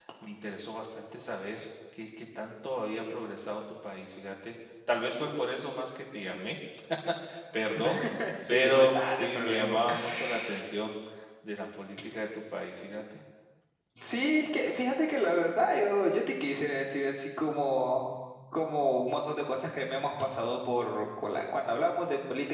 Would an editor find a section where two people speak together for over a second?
Yes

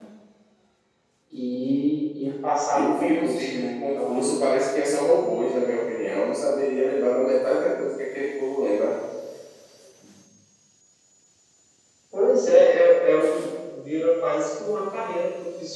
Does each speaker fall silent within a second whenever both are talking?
No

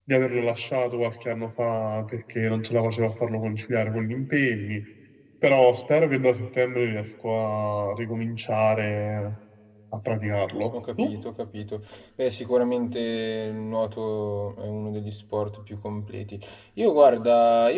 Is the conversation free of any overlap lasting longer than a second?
Yes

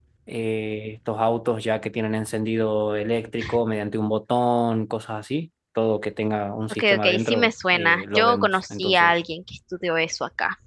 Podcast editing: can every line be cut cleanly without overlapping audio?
No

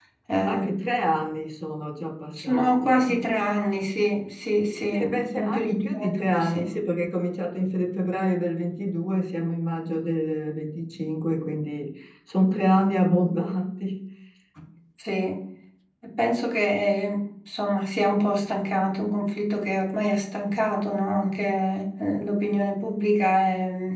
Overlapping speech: Yes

